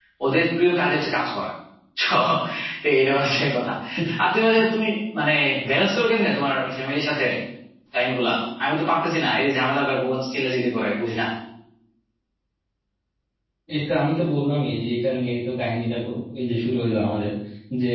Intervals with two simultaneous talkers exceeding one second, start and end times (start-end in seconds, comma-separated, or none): none